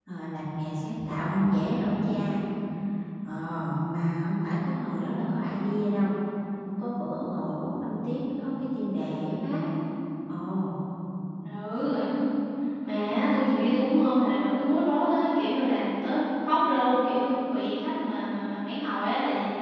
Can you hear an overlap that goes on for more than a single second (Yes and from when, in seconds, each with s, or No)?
No